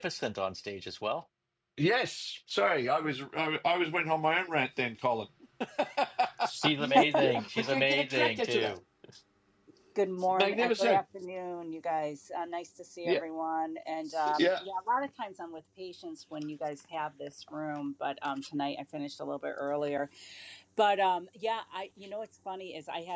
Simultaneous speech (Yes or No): Yes